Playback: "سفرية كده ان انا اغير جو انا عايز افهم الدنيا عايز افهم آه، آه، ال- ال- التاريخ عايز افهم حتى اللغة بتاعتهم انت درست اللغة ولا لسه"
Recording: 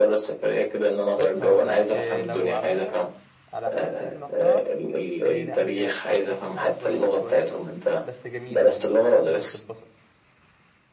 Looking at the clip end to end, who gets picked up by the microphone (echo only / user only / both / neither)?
both